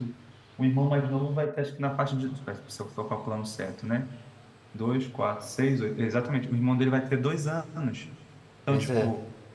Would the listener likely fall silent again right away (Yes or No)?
Yes